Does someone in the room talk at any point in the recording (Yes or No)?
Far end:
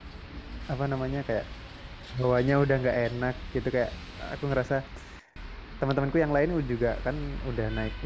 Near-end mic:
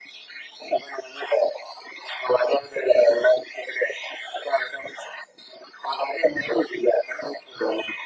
No